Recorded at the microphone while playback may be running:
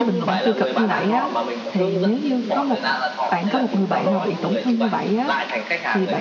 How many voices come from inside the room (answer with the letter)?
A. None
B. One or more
B